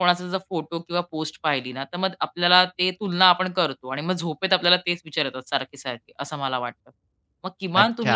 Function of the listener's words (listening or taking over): taking over